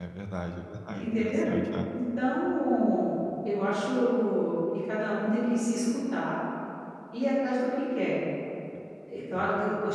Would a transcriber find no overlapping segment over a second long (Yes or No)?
Yes